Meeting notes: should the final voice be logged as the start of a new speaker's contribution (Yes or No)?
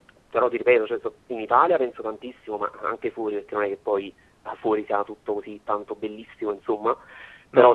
No